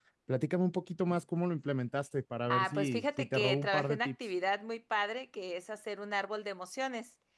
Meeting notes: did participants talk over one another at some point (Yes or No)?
Yes